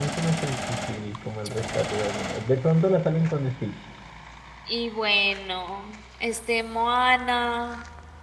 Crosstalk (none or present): none